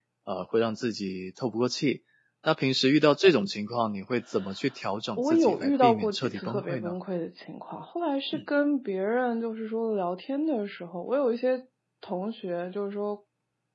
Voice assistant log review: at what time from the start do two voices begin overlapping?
5.2 s

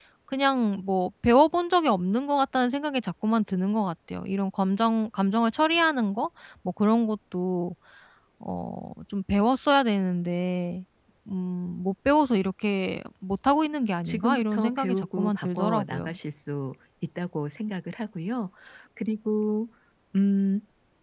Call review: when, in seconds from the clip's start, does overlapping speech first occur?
14.0 s

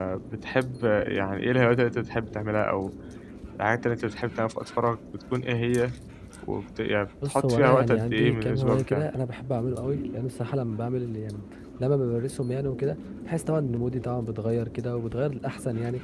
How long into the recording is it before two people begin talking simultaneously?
7.2 s

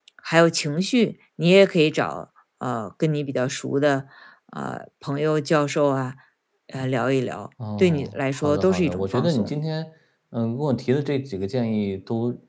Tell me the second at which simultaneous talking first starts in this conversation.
7.6 s

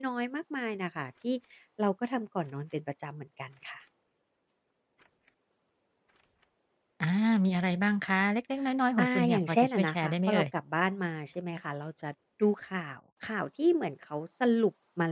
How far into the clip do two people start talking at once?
9.0 s

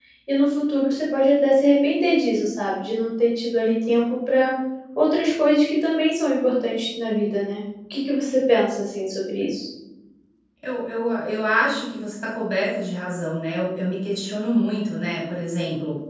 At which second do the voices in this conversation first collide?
none

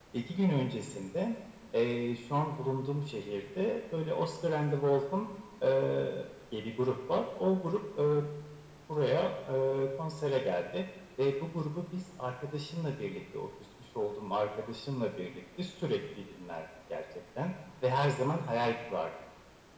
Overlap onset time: none

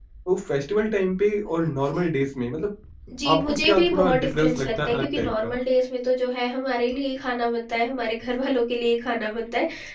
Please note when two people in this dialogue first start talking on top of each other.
3.4 s

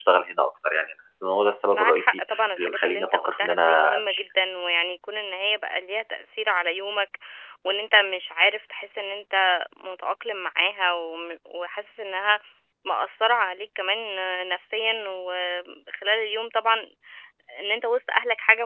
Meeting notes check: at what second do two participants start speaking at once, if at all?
1.7 s

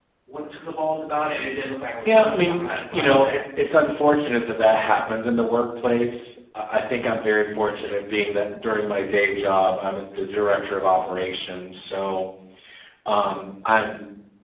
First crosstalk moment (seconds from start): 2.0 s

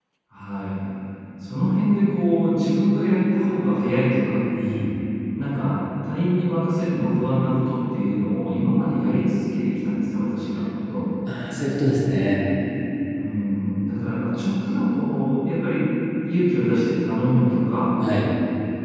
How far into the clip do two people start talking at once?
none

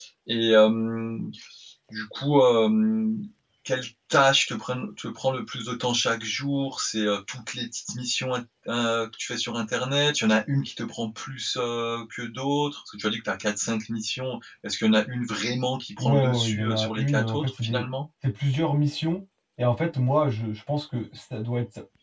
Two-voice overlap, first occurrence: 16.0 s

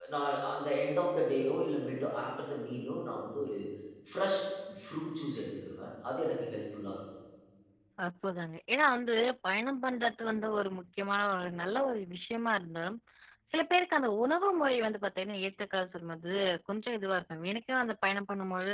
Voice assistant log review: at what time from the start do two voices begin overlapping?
none

